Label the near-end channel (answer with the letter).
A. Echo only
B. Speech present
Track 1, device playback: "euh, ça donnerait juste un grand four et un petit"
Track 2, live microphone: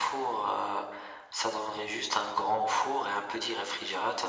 A